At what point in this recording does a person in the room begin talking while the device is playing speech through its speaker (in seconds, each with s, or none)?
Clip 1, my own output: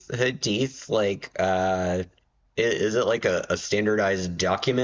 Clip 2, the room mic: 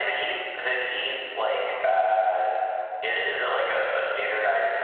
none